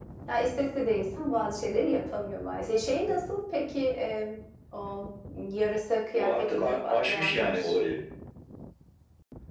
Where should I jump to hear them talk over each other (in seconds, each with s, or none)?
6.1 s